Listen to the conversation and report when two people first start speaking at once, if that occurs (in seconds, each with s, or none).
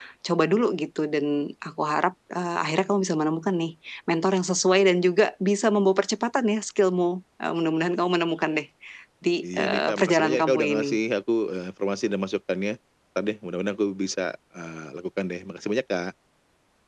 9.6 s